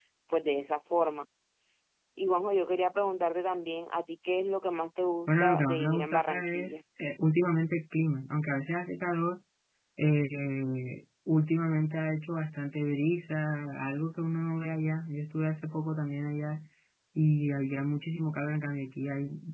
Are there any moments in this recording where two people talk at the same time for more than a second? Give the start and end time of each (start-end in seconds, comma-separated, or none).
5.3-6.8